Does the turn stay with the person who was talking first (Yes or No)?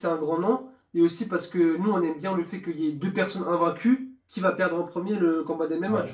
Yes